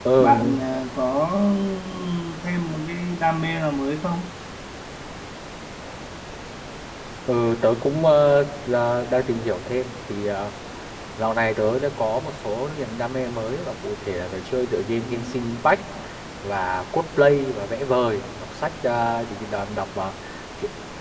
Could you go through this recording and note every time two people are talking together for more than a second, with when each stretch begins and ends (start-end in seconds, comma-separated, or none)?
none